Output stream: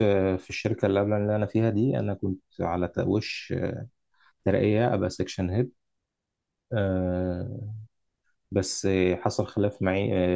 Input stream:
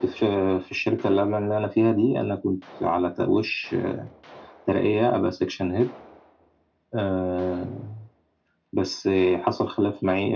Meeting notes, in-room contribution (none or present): none